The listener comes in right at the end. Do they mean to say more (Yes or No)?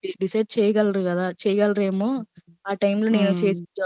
Yes